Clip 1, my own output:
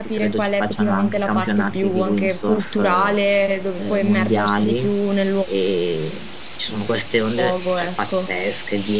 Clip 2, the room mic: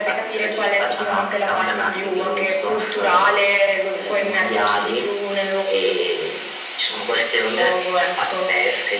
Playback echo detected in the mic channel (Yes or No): Yes